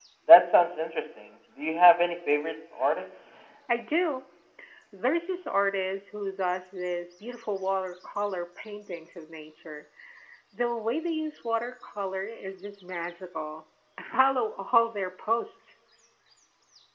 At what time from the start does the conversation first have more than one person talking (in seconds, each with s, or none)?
none